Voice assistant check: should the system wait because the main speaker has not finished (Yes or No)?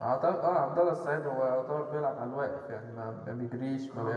No